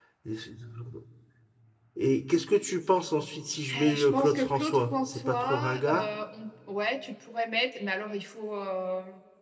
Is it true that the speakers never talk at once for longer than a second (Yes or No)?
No